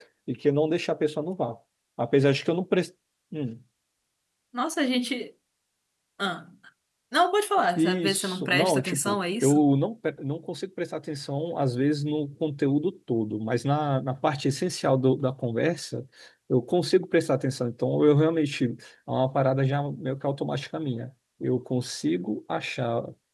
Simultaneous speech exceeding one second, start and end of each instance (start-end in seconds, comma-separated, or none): 7.8-9.6